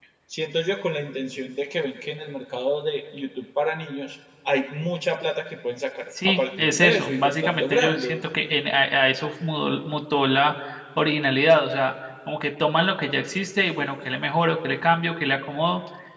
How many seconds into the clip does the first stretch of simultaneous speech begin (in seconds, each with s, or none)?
6.2 s